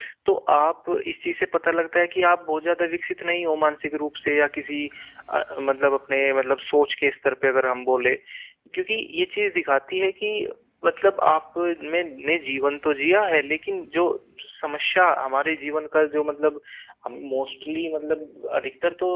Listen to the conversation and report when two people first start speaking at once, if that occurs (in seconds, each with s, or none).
none